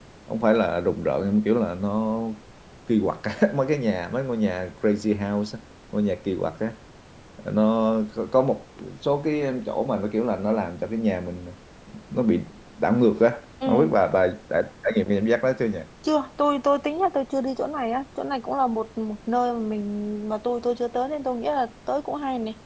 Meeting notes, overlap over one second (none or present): none